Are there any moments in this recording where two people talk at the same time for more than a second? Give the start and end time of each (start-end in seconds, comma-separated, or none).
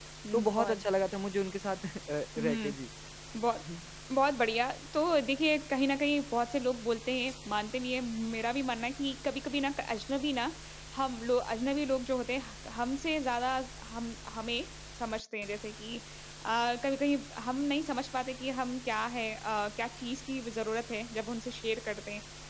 none